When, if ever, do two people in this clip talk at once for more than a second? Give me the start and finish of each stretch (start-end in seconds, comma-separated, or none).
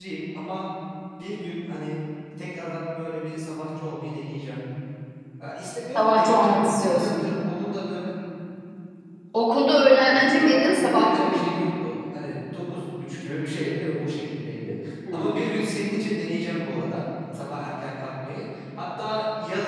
6.0-7.2, 10.1-11.6